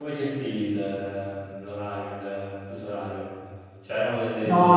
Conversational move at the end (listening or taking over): taking over